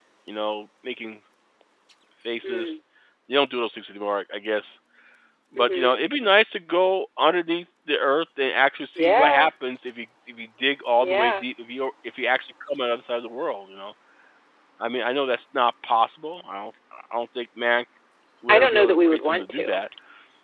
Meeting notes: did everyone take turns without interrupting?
No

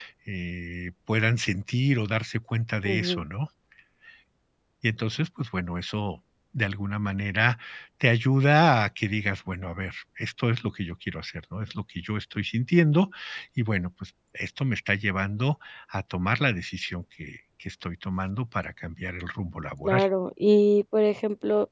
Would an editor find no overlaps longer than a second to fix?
Yes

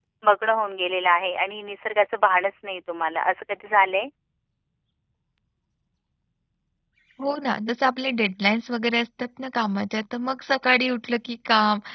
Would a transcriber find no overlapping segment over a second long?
Yes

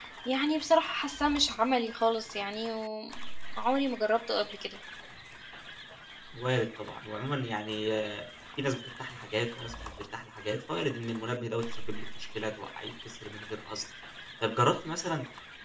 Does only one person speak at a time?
Yes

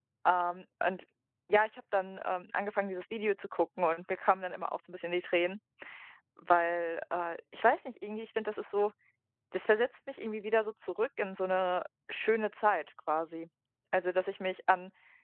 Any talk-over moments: No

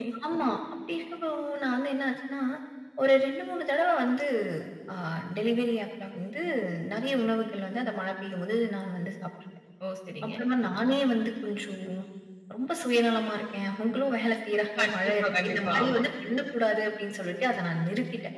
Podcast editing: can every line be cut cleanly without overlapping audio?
No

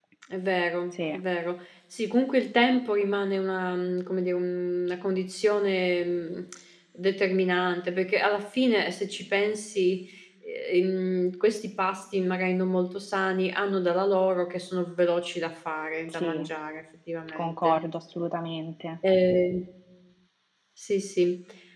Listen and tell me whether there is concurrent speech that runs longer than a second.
No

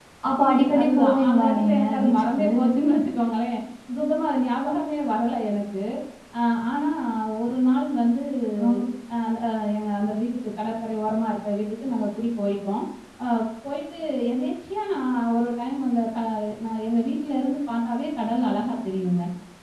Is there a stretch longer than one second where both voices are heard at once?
Yes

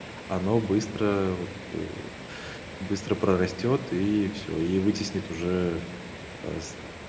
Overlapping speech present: No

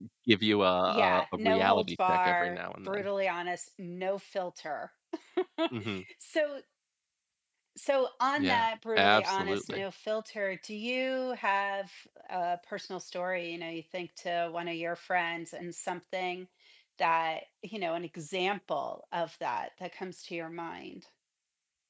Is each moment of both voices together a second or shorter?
No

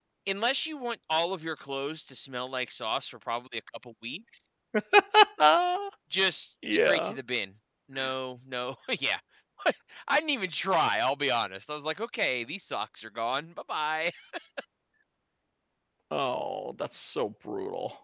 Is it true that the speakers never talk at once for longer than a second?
Yes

